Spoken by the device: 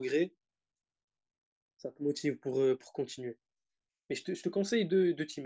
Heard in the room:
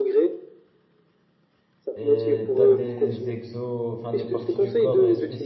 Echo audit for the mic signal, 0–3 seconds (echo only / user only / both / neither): both